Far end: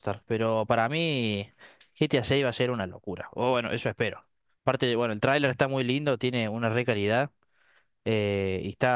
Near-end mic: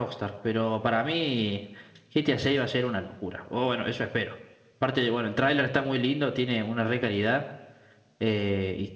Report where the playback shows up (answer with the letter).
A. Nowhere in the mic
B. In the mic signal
B